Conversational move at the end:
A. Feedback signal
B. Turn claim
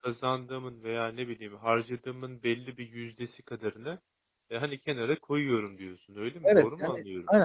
B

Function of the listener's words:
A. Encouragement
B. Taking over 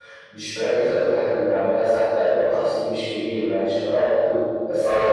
A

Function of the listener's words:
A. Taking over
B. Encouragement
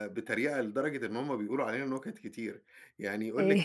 B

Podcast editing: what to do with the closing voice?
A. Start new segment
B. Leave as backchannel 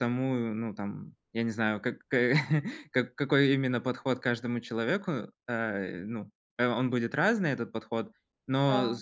B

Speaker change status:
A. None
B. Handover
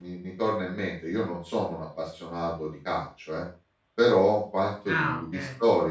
A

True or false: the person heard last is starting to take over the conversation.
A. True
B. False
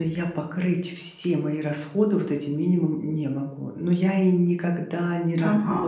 B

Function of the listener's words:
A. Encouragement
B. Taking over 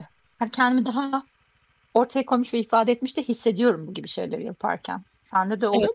B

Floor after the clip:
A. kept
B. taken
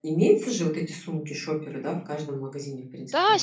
B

